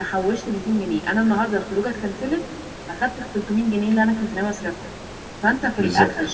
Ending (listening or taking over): listening